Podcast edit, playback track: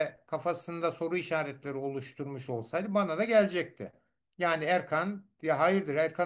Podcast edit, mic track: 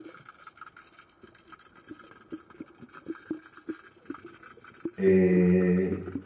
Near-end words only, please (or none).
e,